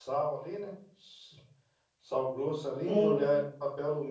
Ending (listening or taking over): listening